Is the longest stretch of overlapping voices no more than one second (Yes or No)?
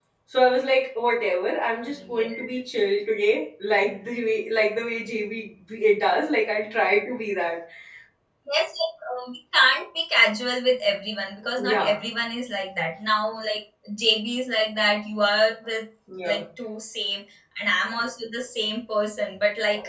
Yes